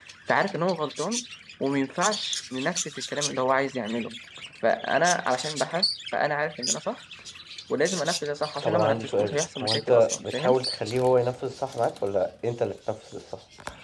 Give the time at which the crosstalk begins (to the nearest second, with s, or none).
9 s